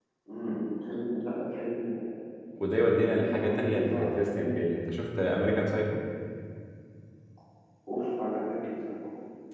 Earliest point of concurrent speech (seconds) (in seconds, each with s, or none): 3.1 s